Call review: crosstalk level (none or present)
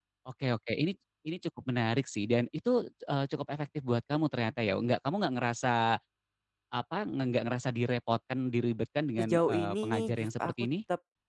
present